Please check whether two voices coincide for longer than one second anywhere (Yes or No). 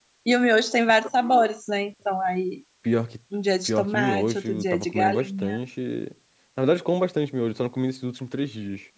Yes